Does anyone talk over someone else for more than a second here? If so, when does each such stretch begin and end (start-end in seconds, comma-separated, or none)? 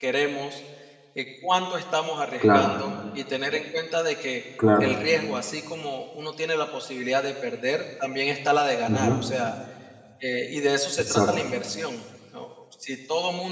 none